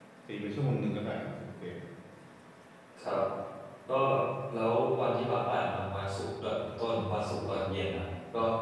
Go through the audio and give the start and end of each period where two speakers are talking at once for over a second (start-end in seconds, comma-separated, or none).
none